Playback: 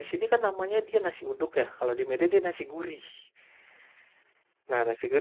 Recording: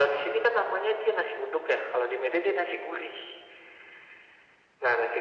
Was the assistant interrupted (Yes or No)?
No